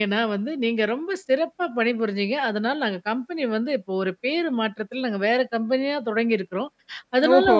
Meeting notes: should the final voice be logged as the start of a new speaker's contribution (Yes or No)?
No